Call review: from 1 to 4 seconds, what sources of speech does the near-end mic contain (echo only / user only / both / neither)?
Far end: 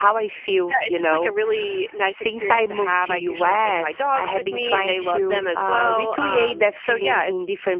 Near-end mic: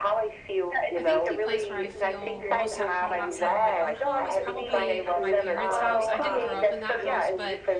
both